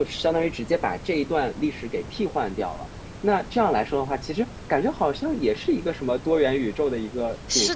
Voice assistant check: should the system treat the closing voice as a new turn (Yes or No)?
Yes